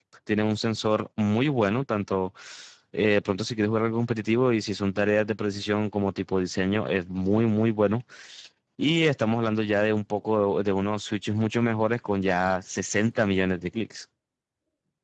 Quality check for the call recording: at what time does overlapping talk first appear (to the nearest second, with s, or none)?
none